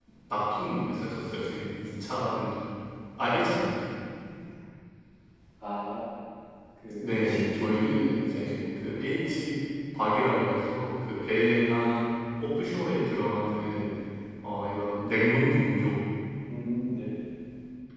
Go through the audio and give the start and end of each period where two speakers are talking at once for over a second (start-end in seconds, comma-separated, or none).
7.0-9.4